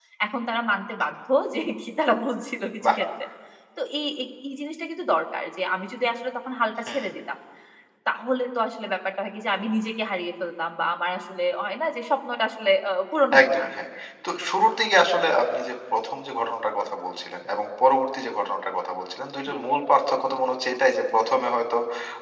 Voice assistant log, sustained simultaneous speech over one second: none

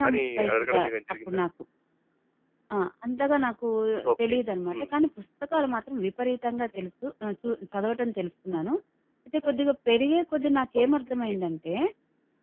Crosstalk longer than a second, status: none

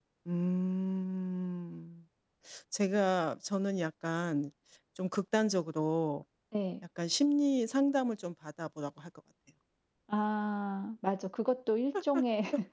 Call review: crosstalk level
none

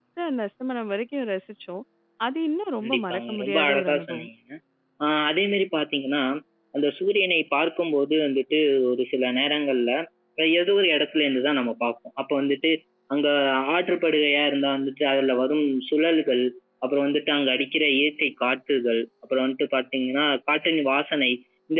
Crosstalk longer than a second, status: present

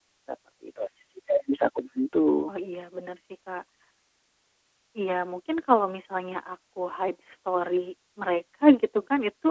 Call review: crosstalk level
none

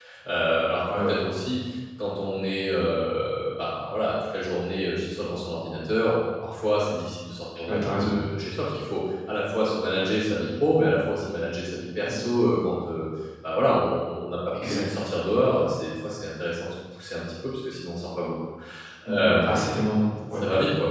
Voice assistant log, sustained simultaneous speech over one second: none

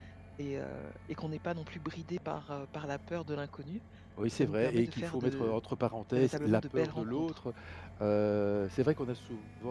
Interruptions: present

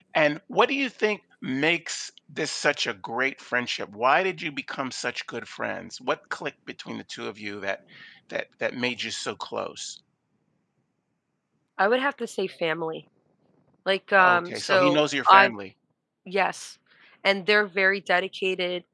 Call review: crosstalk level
present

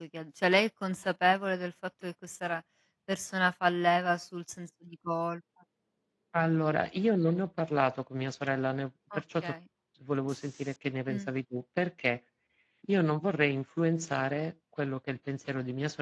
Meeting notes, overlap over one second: none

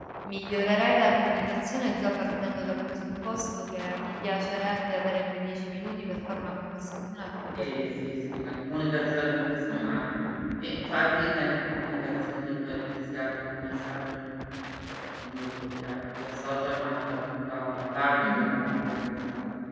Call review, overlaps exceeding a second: none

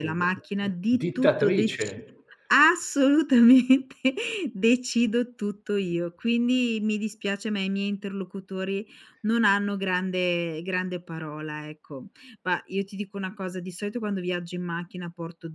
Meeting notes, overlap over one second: present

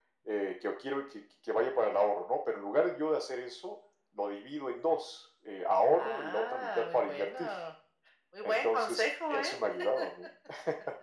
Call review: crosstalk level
present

